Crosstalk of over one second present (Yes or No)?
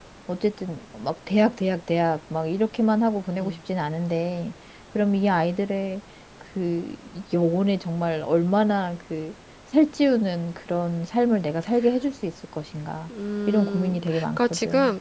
Yes